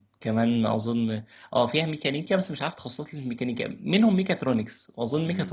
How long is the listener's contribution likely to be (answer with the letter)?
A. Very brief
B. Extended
A